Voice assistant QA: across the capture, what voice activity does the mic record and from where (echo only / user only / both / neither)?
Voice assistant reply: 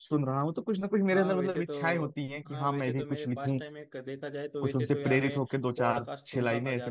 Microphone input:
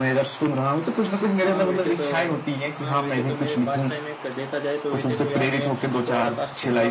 echo only